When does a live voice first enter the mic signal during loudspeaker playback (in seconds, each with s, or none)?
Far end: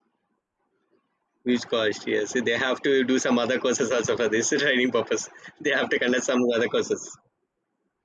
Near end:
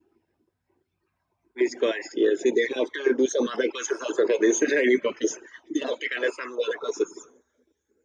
none